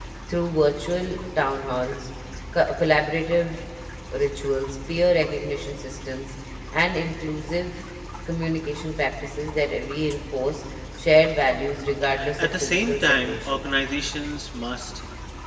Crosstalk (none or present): present